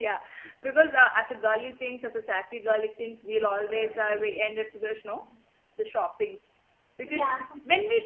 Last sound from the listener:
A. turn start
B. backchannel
B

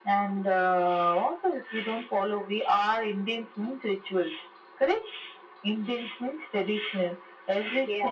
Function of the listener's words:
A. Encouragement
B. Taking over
A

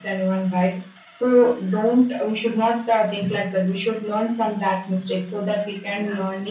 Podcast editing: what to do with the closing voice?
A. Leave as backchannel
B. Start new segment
A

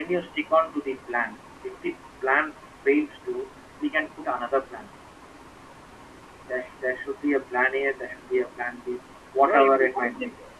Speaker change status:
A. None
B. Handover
B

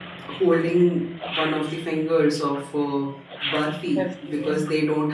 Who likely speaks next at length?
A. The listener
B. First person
B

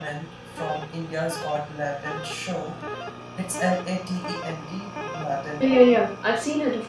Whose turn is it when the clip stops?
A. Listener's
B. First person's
A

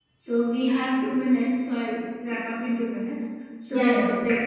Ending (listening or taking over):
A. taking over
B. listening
B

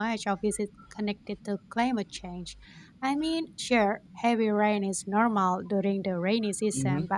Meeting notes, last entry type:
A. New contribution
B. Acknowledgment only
B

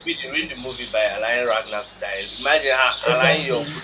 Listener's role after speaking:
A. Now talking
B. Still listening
B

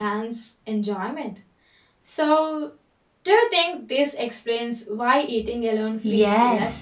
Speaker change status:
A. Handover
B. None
A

